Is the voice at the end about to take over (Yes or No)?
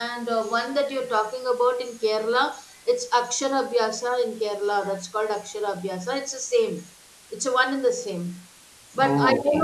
No